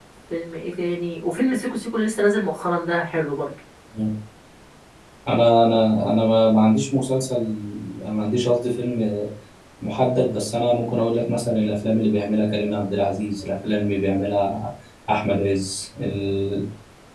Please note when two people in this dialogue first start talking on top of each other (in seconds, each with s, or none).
none